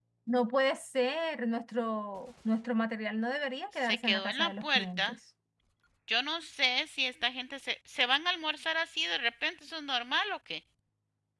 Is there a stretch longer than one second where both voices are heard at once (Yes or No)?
Yes